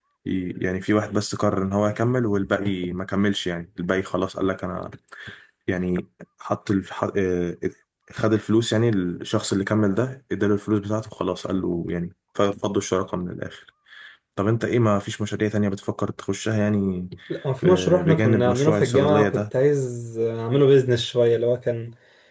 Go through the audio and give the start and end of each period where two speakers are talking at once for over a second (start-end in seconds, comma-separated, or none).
17.6-19.4